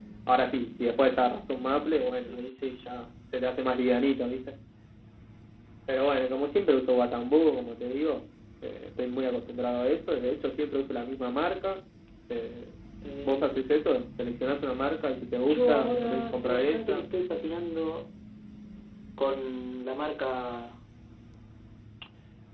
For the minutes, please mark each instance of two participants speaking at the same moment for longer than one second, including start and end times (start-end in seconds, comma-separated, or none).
15.5-17.0